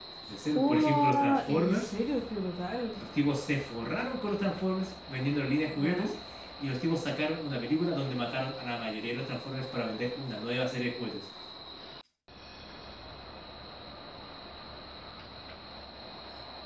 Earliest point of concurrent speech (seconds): 0.6 s

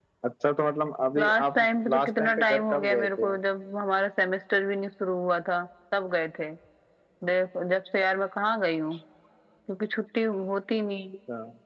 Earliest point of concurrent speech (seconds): 1.2 s

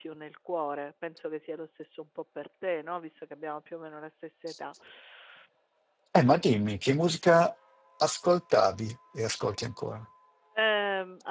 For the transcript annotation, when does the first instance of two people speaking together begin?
none

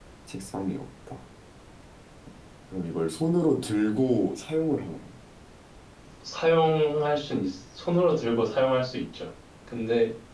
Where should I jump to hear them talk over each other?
none

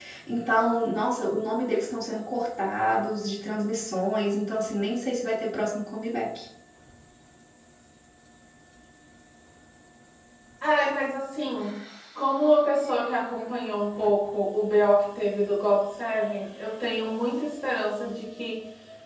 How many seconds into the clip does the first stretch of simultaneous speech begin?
none

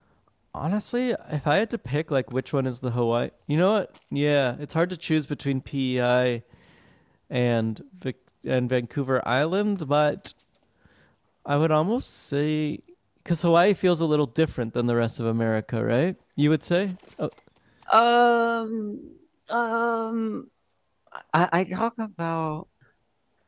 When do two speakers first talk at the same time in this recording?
none

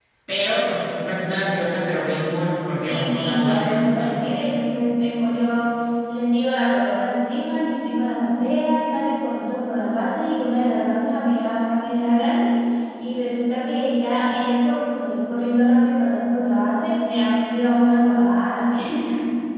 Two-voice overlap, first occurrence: 2.8 s

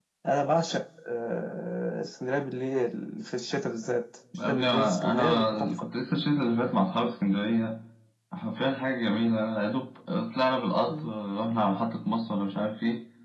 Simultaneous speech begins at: 4.3 s

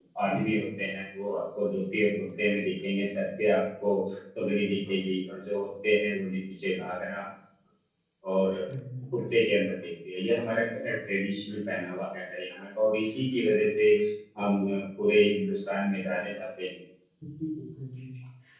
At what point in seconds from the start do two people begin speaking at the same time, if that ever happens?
none

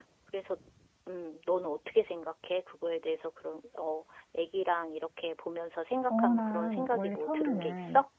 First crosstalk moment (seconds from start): 6.1 s

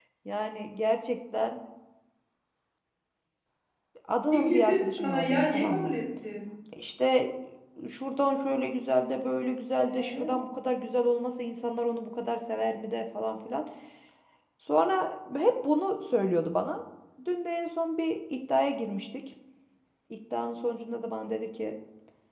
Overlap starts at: 4.3 s

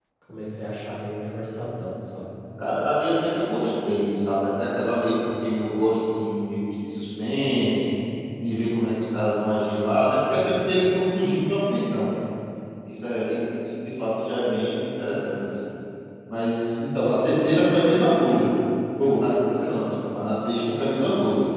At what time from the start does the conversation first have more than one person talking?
none

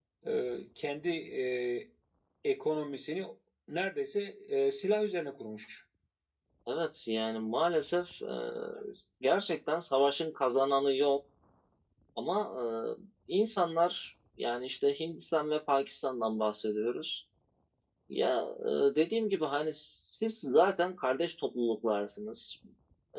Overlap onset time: none

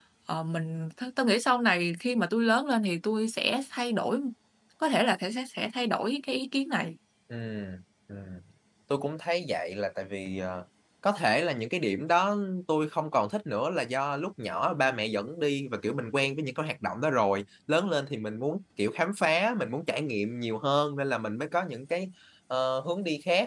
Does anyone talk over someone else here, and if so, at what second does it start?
none

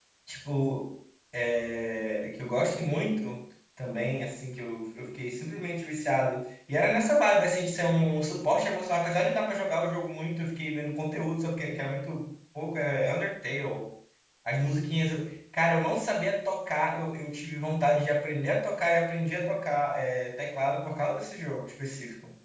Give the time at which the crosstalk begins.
none

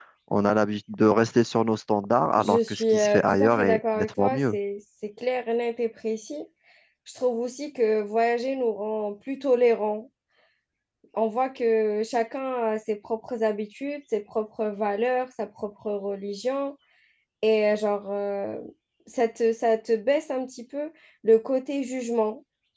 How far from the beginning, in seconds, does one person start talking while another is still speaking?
2.4 s

